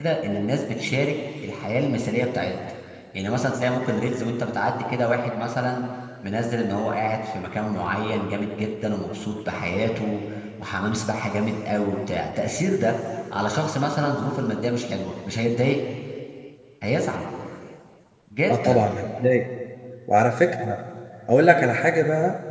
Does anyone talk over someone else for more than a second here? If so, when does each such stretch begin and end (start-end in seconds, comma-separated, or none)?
none